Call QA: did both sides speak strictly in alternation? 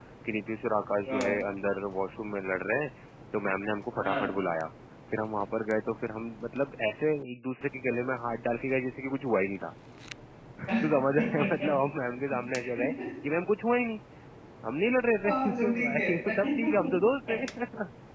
No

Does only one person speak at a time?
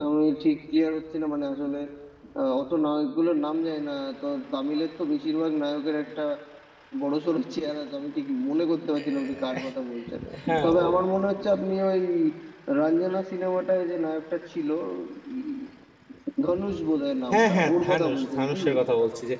No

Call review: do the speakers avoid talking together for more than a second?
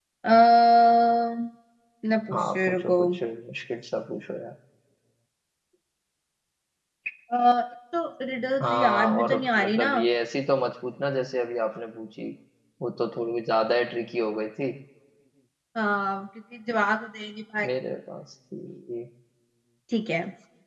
No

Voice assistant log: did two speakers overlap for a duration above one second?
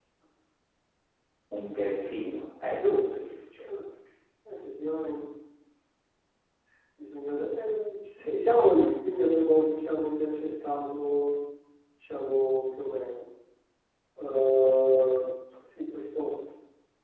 No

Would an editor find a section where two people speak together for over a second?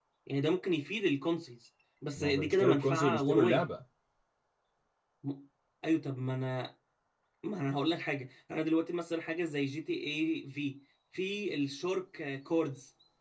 Yes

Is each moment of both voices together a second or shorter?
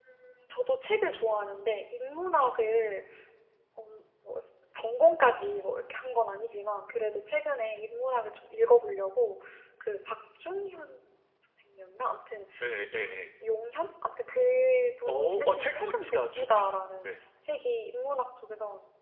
No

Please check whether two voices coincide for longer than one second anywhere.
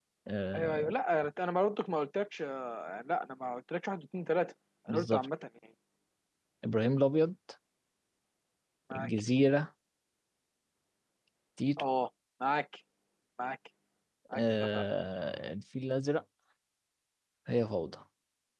No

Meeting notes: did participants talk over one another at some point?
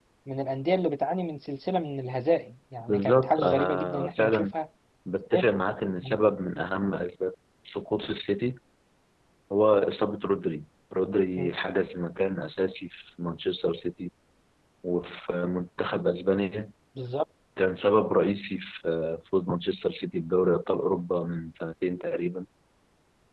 Yes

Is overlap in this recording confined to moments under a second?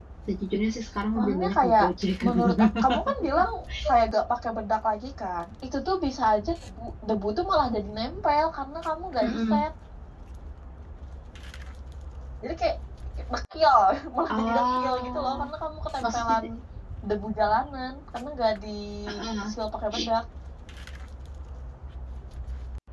No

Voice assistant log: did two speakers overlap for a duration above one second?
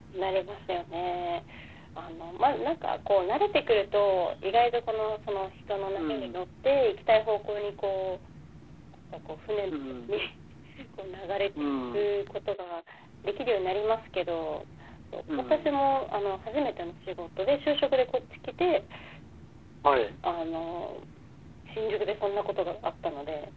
No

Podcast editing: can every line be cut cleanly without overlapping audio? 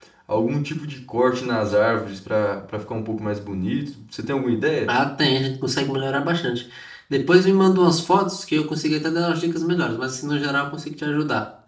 Yes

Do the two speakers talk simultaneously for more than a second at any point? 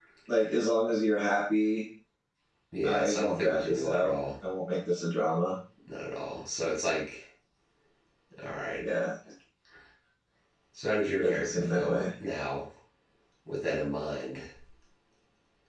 Yes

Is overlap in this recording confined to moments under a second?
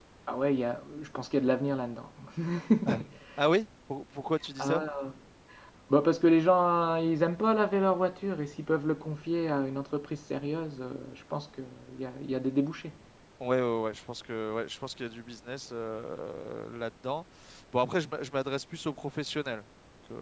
Yes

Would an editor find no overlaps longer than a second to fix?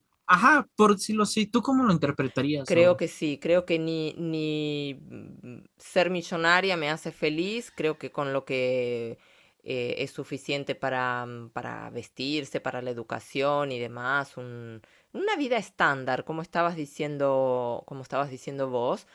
Yes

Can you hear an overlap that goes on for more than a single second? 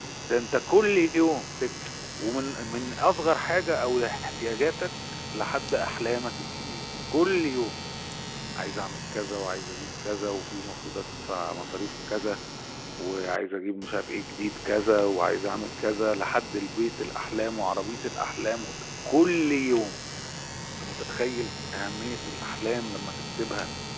No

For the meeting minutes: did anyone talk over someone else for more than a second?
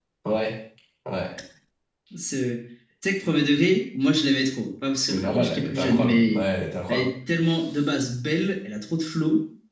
Yes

